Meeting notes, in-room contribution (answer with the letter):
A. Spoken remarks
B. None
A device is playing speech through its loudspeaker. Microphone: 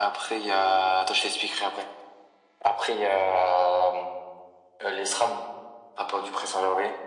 B